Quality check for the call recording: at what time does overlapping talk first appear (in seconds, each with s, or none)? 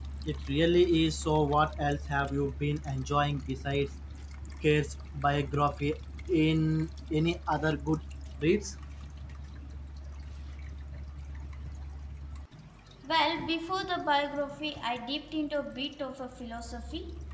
none